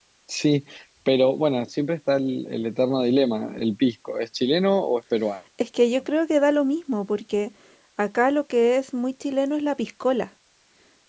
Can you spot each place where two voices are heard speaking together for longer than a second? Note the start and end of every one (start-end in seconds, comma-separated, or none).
none